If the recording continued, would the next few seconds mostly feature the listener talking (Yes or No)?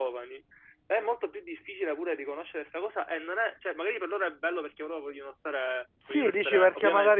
Yes